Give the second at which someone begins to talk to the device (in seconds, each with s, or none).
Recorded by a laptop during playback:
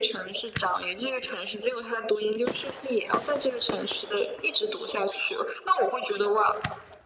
none